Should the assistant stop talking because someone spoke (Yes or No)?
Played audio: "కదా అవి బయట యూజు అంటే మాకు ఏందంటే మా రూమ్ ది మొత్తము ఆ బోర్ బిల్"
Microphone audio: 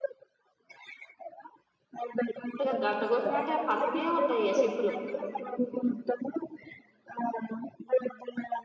Yes